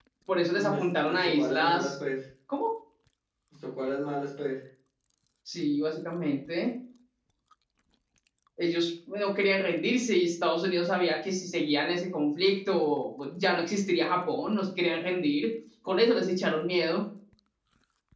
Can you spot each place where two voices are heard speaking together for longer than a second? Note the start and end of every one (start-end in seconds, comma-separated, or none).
0.6-1.9